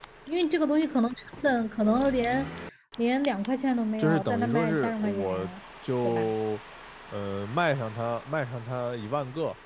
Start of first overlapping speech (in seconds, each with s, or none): 4.0 s